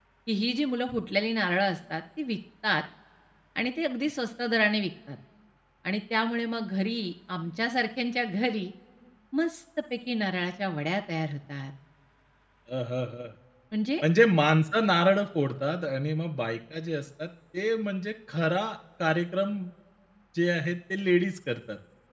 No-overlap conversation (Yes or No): Yes